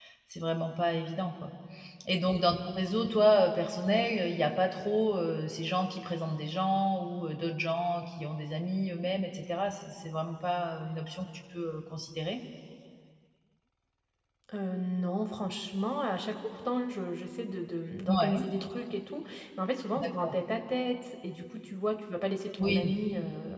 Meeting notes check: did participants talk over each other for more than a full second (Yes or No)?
No